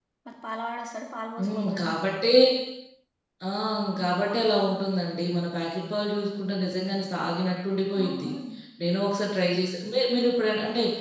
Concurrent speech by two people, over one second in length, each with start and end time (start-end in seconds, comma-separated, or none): none